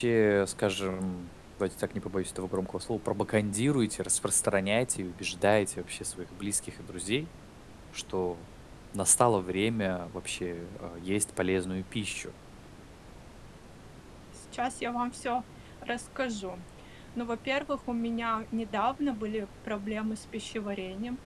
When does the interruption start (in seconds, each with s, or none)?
none